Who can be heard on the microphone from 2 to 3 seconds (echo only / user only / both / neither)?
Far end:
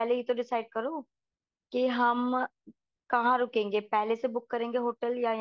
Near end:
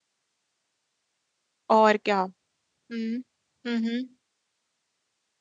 user only